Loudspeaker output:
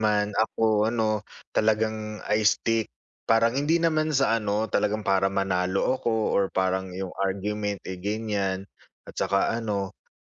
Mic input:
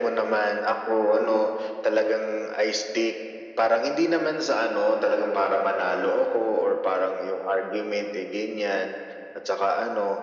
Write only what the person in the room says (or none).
none